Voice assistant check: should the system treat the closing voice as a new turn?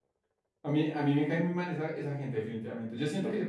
No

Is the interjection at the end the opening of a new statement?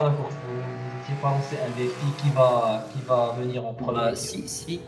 Yes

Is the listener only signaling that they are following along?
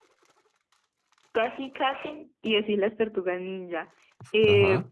Yes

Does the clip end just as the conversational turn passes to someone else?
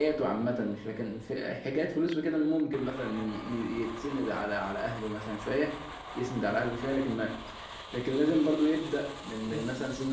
No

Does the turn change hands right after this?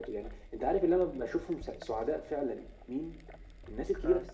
No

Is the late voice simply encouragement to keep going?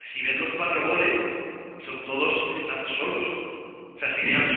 Yes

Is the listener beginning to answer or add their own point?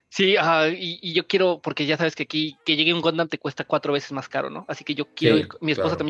No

